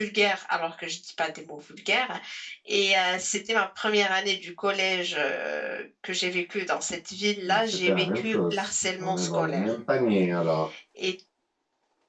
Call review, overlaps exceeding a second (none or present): present